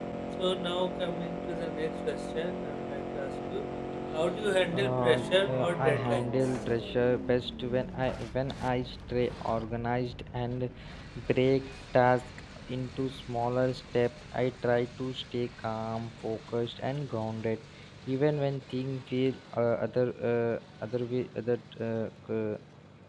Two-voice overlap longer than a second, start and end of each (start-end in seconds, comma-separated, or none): 4.7-6.5